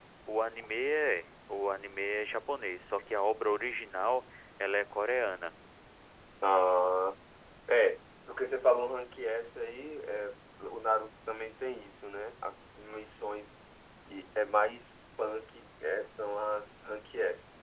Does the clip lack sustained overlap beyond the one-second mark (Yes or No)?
Yes